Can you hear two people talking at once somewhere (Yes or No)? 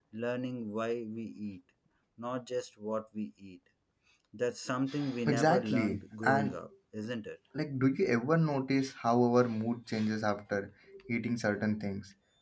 Yes